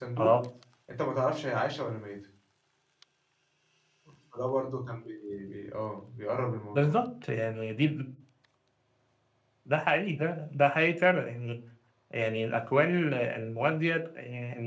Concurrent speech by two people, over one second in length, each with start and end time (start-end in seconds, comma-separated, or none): none